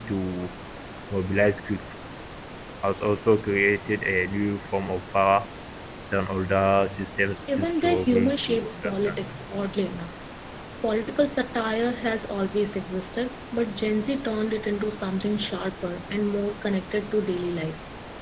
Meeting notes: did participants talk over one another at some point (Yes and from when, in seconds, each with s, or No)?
Yes, from 7.5 s